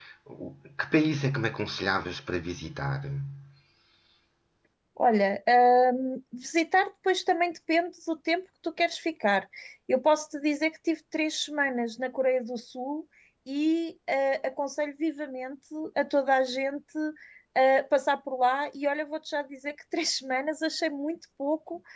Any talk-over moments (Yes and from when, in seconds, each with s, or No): No